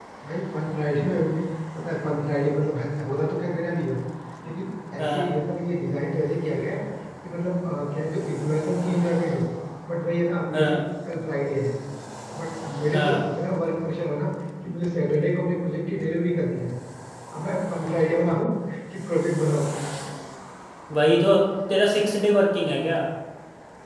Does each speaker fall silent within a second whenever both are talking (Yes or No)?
Yes